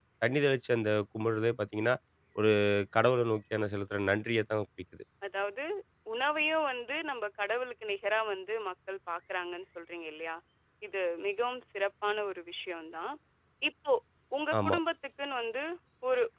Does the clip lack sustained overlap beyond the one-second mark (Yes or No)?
Yes